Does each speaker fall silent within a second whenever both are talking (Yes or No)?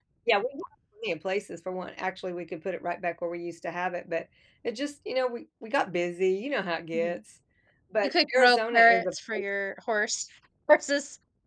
No